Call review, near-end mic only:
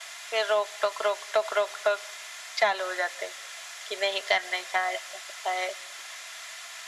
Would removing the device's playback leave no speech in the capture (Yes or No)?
Yes